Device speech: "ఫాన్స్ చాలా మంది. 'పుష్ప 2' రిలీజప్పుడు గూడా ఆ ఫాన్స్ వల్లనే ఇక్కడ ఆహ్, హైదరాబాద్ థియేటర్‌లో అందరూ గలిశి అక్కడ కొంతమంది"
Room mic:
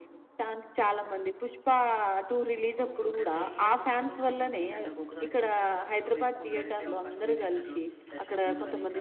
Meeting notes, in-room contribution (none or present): present